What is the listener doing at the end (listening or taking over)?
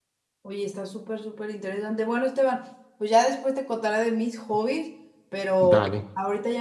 listening